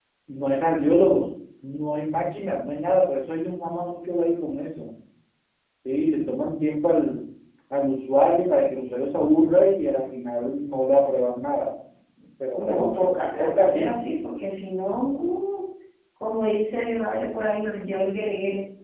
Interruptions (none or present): present